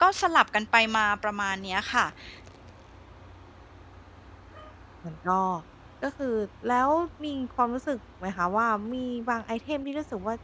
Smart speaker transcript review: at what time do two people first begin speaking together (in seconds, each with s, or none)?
none